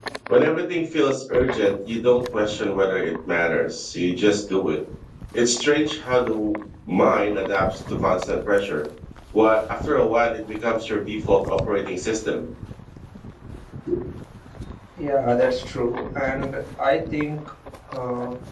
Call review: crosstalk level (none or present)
none